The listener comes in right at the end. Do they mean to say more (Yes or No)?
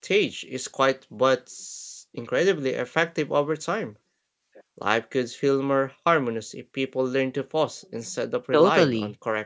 Yes